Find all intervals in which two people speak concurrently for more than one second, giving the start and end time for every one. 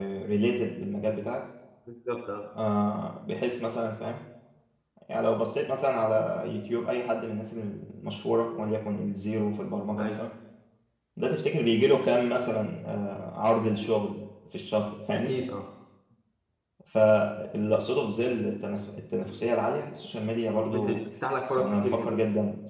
none

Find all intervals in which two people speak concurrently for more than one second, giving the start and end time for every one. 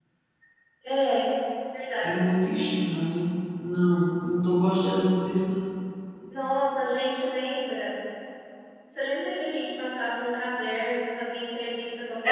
none

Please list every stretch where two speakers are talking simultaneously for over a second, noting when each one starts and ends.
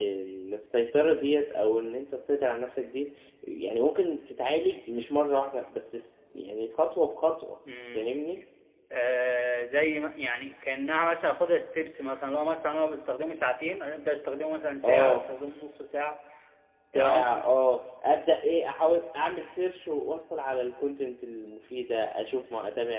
none

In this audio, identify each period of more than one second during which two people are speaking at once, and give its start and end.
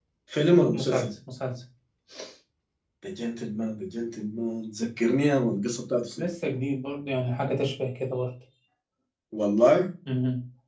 none

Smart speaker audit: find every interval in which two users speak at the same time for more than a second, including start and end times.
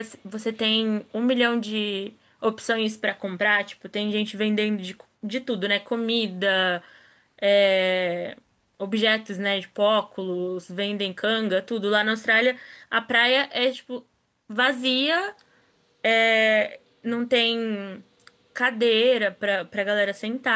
none

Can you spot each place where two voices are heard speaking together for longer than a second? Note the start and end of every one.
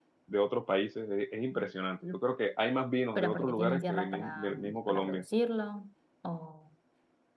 3.1-5.2

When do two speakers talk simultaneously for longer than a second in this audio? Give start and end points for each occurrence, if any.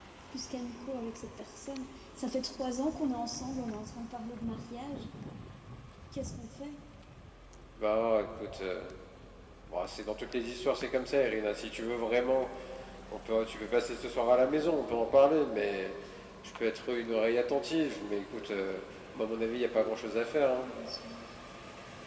none

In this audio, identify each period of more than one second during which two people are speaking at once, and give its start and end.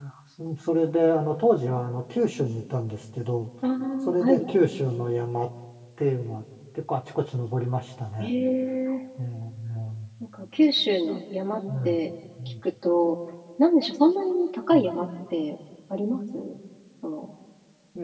none

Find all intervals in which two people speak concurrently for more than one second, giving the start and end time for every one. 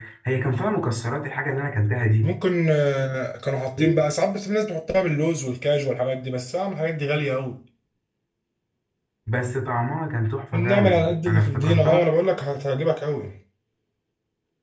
10.5-12.1

